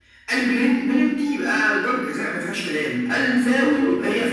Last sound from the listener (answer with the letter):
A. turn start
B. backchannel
B